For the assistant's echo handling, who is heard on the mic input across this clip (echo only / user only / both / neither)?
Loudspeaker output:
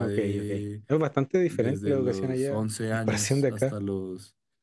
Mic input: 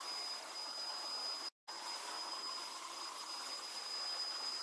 neither